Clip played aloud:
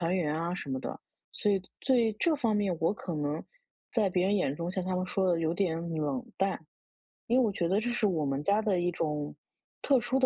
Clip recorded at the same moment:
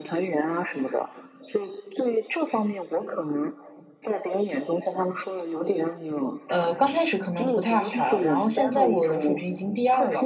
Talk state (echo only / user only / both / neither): both